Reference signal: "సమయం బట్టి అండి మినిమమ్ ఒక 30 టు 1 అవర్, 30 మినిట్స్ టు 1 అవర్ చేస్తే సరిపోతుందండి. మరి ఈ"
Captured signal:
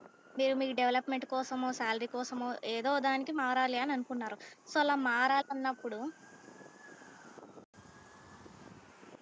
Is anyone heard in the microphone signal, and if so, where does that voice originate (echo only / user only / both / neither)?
user only